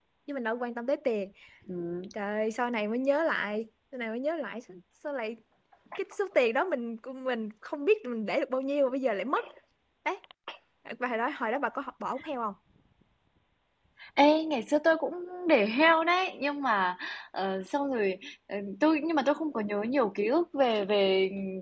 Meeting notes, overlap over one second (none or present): none